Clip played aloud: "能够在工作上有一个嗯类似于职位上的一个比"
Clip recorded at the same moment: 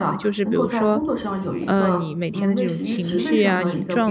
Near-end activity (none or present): present